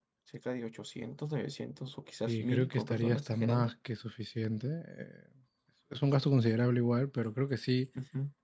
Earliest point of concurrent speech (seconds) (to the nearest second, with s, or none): 2 s